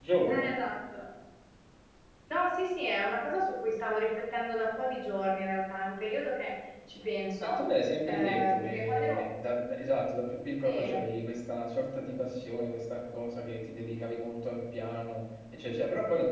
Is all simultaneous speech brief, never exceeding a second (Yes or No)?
No